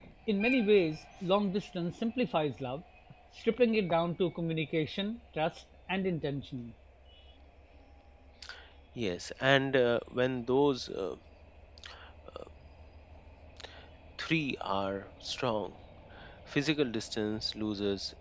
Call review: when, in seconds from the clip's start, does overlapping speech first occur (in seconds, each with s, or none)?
none